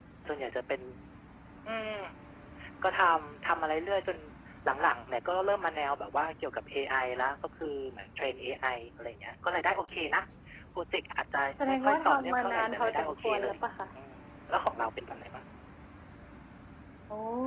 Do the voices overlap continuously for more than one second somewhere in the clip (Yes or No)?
Yes